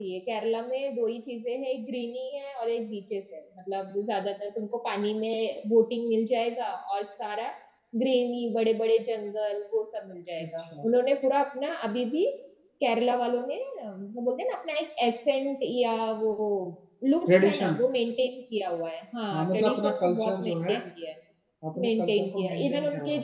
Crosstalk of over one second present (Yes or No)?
Yes